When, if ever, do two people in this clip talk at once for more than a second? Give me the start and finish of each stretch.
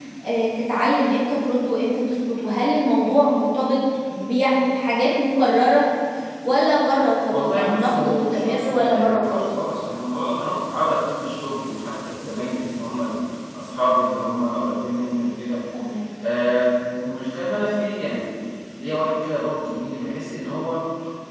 7.3-9.5

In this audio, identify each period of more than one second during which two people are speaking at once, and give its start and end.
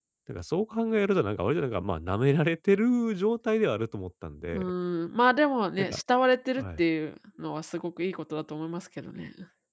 none

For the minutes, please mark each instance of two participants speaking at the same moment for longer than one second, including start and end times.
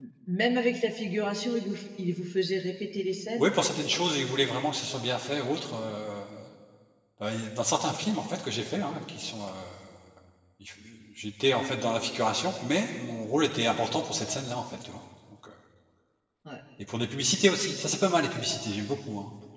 none

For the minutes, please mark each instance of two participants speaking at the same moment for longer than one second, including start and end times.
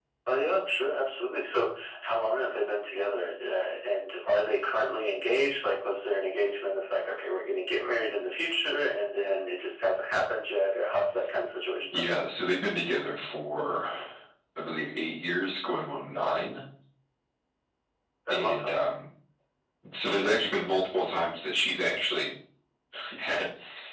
none

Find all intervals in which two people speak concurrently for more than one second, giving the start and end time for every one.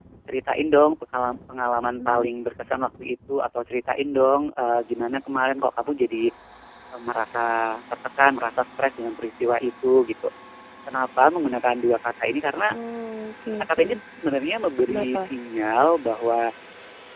none

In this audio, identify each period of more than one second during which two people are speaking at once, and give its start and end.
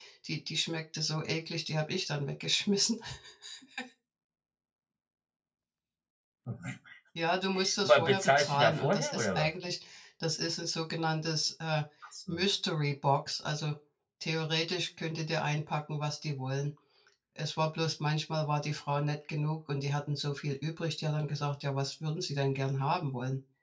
7.8-9.5

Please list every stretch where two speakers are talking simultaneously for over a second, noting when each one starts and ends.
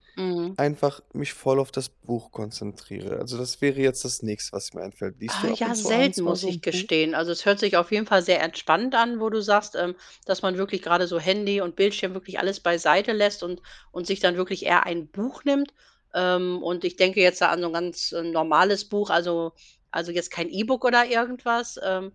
5.3-6.8

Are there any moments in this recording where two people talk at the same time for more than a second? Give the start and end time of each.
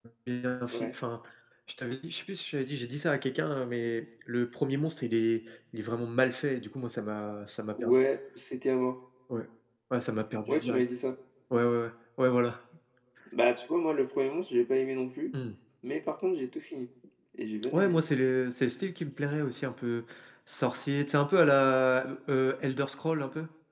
none

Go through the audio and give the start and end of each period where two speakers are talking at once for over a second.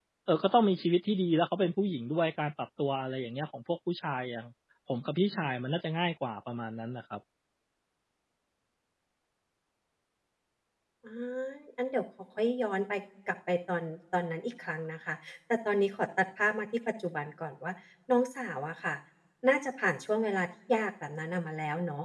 none

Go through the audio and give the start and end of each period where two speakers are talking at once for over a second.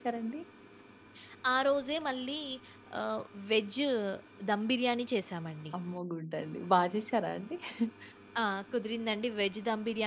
none

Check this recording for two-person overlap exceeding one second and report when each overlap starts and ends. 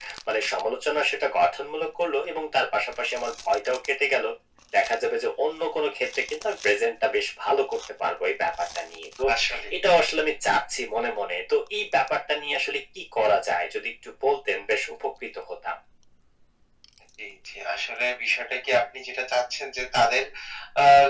none

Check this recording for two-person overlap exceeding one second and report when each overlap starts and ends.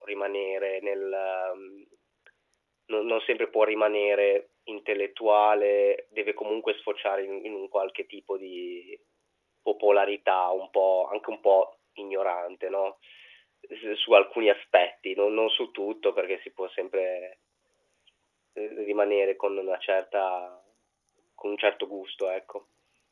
none

